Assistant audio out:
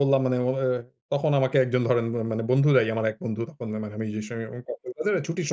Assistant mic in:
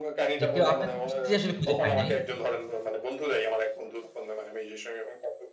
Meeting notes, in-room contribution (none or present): present